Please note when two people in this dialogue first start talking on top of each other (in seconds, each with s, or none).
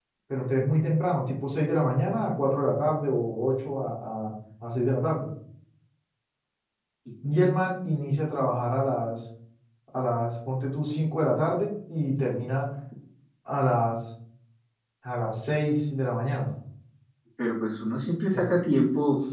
none